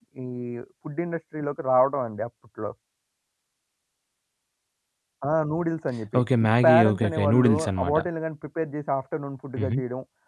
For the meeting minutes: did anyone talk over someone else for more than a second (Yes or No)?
Yes